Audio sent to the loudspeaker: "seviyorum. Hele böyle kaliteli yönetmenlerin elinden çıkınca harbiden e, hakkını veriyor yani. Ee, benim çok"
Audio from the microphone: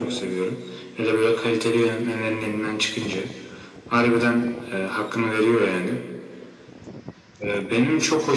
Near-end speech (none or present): none